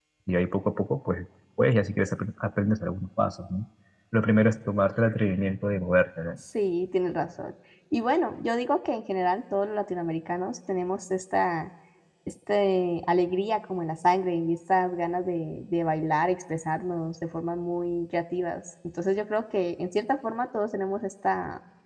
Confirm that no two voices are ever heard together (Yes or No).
Yes